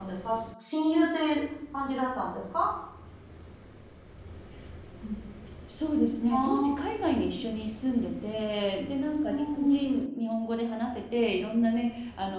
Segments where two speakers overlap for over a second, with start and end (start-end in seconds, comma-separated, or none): none